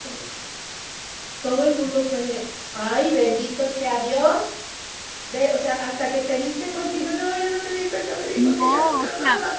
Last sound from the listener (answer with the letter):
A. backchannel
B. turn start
B